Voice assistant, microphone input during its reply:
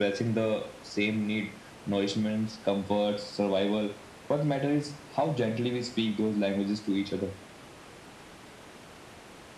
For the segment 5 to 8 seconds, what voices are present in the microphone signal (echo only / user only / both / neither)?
echo only